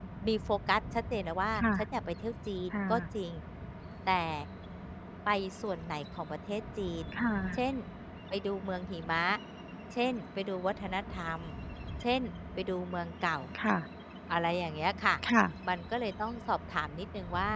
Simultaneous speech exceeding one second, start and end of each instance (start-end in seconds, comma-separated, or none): none